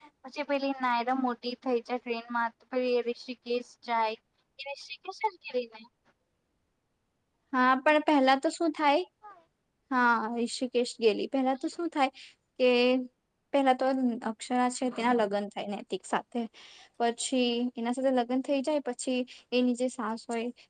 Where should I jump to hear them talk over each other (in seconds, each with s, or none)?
none